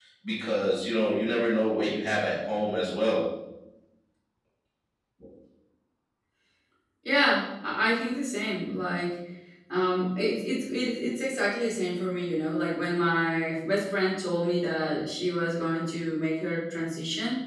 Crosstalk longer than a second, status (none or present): none